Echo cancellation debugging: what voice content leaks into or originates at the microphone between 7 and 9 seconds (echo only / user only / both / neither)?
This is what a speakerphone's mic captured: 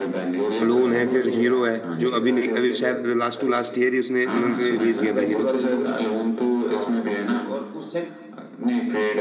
echo only